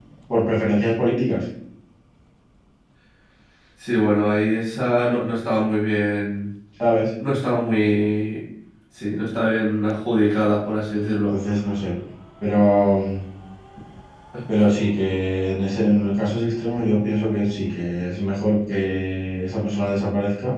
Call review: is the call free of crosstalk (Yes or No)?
Yes